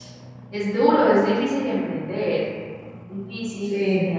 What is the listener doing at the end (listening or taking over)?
listening